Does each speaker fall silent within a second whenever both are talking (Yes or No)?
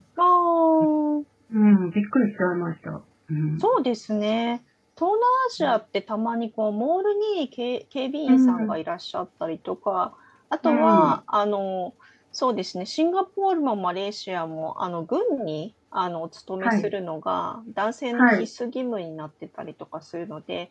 Yes